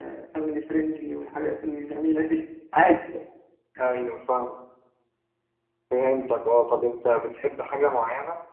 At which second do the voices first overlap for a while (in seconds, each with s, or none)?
none